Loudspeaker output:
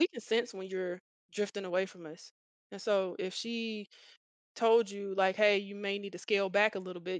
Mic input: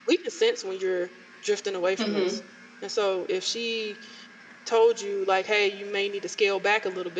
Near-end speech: present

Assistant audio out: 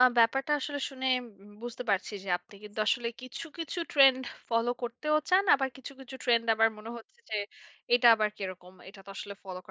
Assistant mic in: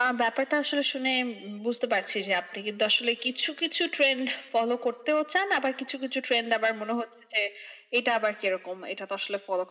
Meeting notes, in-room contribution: none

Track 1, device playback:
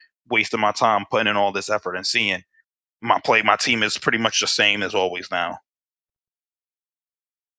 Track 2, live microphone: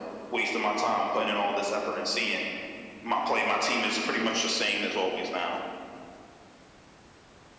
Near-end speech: none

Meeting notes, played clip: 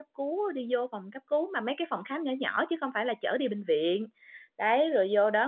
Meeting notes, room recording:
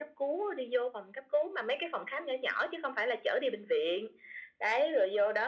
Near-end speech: none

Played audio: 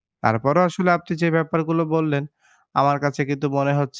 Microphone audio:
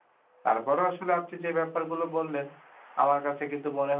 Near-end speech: none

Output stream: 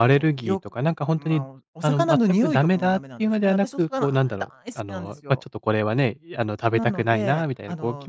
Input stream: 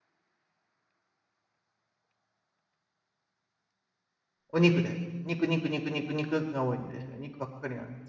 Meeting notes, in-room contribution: present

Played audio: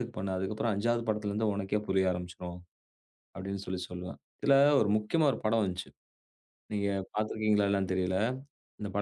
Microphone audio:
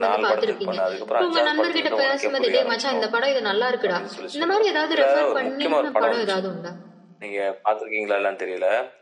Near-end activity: present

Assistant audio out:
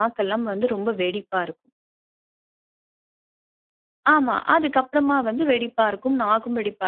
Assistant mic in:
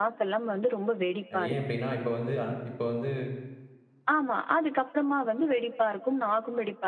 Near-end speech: present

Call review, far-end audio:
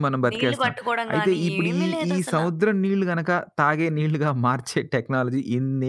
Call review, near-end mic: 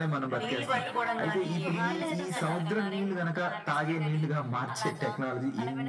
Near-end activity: present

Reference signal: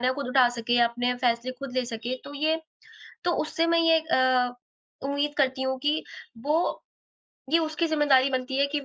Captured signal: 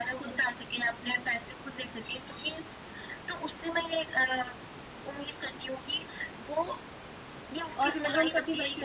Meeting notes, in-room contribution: present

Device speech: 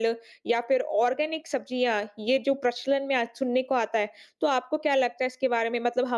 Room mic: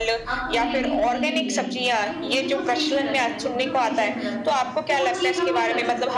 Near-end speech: present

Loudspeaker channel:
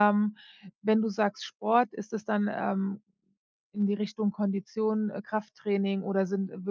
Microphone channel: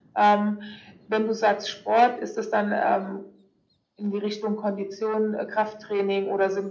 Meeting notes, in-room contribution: none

